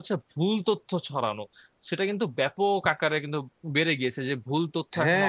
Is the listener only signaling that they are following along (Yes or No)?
No